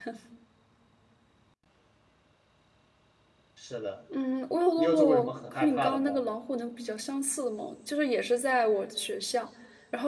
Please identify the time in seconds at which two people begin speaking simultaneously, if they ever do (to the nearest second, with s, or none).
5 s